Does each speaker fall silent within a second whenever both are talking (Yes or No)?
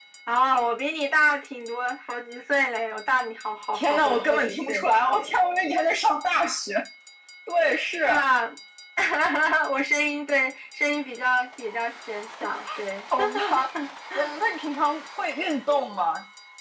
No